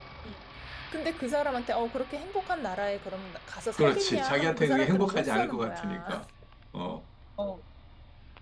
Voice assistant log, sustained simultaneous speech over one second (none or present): present